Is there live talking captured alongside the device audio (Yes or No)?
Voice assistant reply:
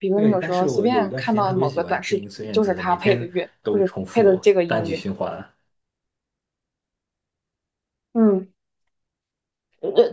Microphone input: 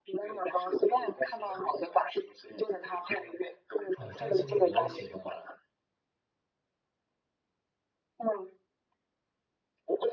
Yes